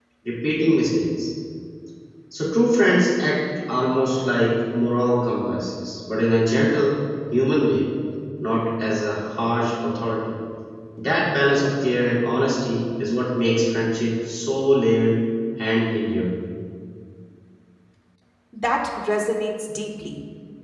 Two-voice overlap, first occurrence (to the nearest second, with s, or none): none